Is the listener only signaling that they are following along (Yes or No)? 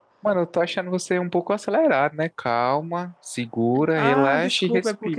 No